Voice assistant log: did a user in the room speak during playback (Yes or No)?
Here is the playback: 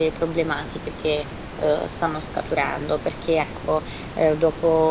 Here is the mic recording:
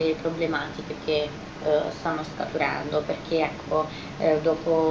No